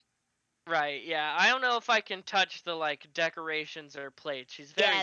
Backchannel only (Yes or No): No